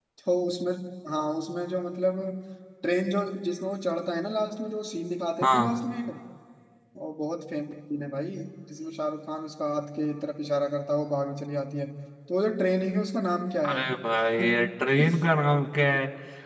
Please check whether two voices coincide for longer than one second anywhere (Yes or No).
No